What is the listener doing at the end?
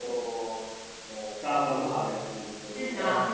taking over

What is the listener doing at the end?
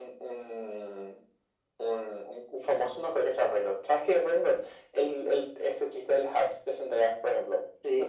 taking over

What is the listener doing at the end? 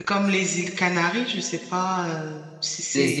taking over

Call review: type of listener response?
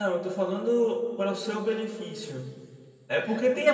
listening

